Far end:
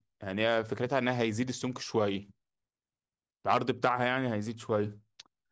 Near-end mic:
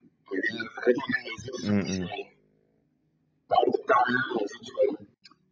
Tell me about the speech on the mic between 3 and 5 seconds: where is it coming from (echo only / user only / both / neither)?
echo only